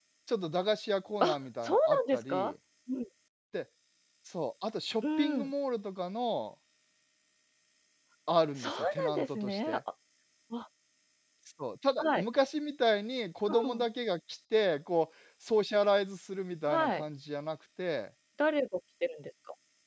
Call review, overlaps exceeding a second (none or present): present